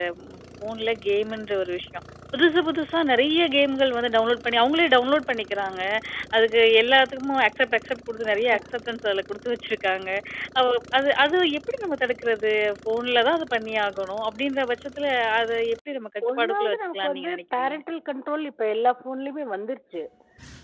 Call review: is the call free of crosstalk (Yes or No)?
No